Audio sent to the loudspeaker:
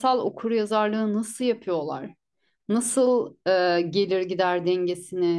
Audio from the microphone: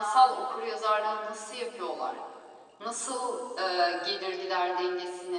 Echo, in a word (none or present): present